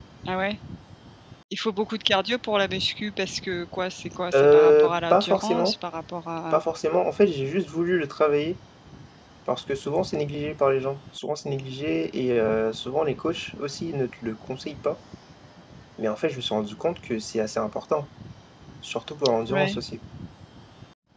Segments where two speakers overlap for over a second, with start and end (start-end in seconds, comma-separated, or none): 4.3-5.7